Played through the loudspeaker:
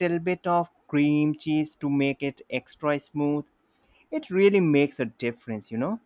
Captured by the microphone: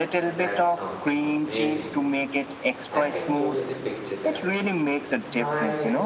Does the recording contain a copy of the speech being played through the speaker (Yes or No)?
Yes